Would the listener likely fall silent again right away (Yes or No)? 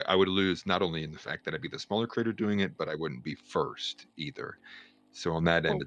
Yes